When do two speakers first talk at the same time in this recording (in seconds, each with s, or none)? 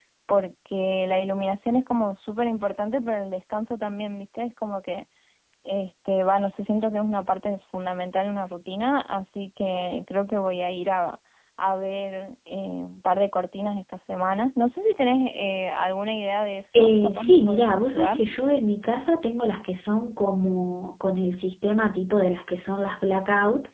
16.7 s